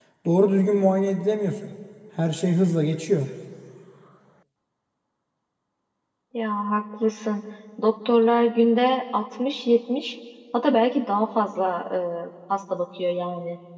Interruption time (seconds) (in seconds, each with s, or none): none